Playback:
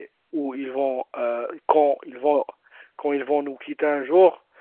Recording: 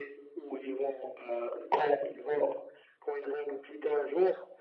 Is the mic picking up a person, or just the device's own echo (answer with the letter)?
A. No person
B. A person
A